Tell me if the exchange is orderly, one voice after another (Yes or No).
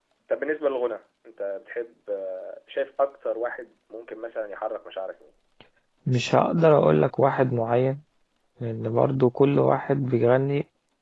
Yes